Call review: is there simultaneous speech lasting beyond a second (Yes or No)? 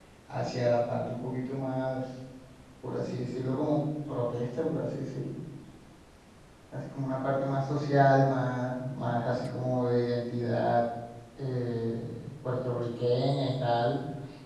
No